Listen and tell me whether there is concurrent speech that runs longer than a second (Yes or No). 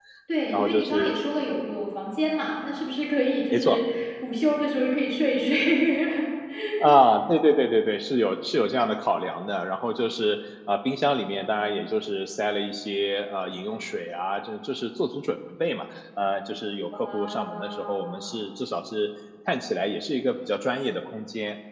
Yes